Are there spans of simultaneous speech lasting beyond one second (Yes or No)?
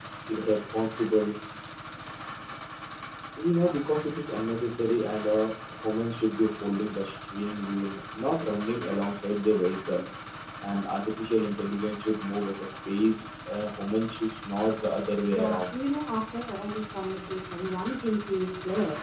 No